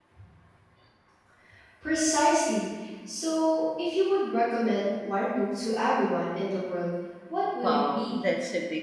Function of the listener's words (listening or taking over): taking over